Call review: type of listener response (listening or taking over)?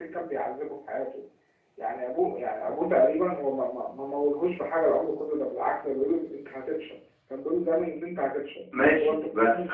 taking over